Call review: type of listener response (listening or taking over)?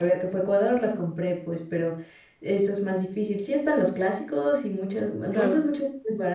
listening